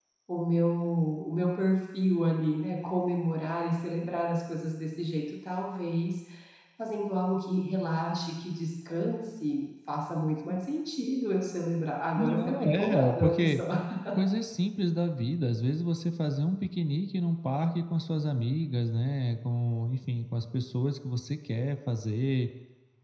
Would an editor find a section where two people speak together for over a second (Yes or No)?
Yes